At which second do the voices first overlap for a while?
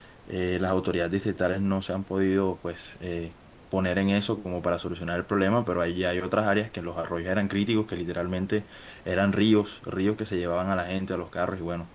none

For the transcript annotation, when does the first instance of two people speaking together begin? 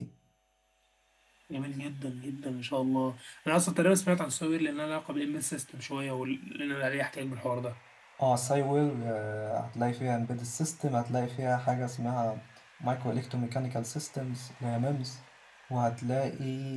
none

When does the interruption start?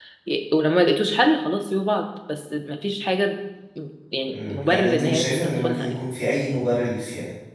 4.3 s

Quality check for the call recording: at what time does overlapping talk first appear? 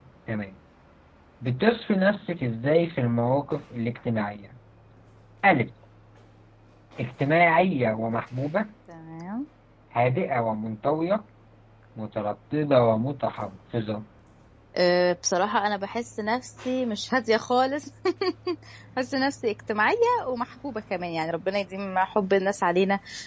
none

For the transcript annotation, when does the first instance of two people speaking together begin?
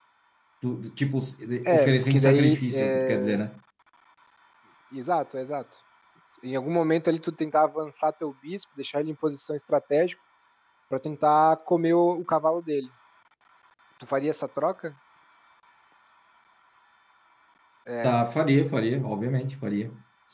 1.6 s

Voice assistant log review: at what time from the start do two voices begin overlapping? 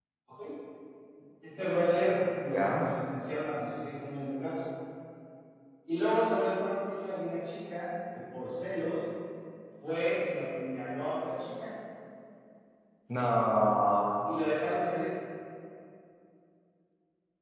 1.6 s

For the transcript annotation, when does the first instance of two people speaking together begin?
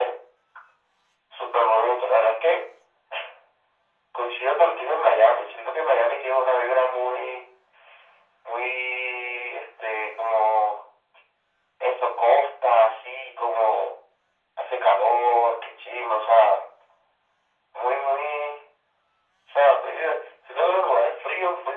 none

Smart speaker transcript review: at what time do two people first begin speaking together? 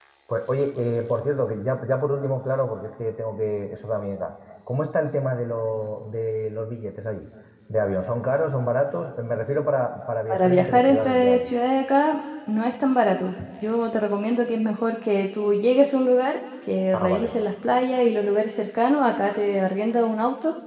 10.3 s

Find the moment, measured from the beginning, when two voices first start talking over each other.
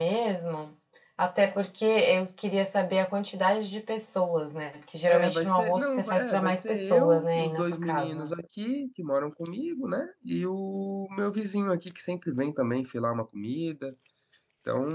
5.1 s

